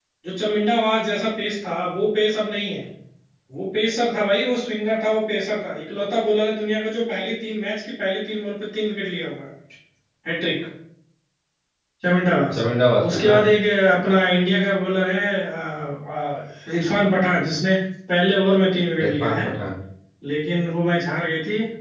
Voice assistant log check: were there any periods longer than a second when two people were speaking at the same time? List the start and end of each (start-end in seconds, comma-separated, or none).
none